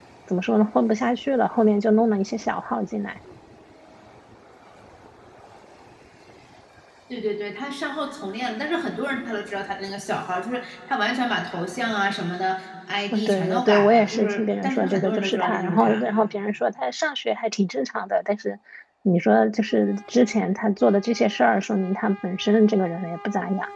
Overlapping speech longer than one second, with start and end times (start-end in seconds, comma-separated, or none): 13.1-16.1